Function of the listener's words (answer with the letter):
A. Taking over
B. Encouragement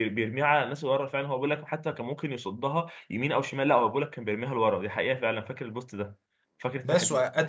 A